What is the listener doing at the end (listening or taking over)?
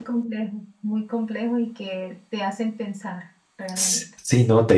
taking over